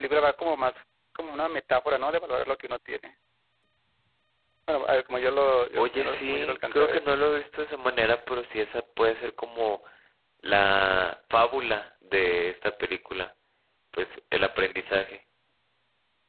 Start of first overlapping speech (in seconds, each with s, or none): 5.8 s